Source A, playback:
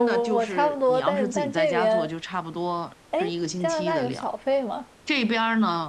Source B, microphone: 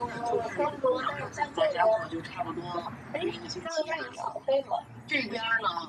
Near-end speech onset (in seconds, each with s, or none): none